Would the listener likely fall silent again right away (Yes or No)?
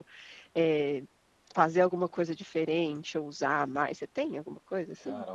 No